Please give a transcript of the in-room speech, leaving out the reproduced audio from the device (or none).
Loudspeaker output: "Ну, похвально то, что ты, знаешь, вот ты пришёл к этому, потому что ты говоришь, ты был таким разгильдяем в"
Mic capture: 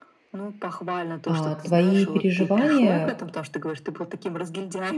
А, твои переживания